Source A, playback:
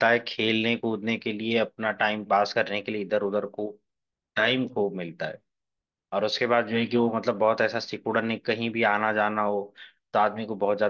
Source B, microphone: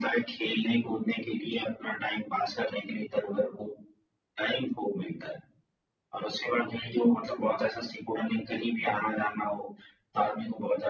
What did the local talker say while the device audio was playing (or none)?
none